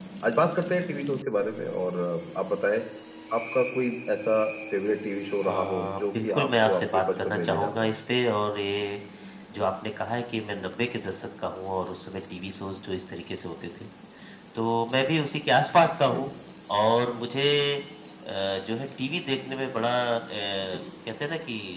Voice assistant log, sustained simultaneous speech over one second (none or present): present